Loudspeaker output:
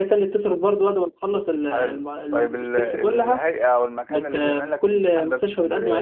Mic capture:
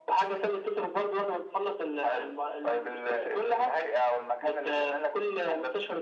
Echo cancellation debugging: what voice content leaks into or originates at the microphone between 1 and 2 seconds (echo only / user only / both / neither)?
echo only